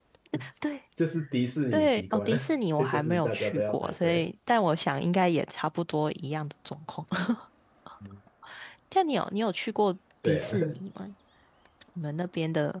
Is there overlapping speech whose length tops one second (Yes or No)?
Yes